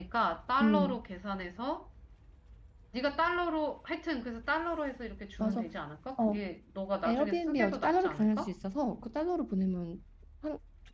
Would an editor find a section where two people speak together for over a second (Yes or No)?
Yes